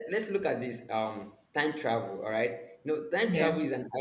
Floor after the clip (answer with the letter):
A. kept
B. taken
A